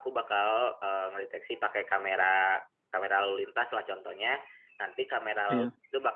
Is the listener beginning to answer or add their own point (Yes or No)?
No